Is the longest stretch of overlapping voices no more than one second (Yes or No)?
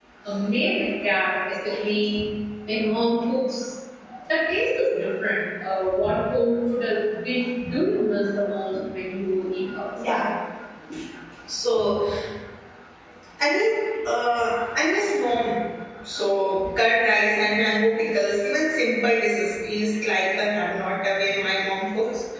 Yes